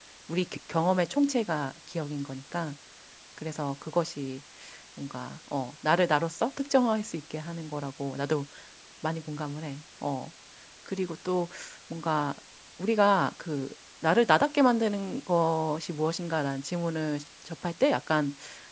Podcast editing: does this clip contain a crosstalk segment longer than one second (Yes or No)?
No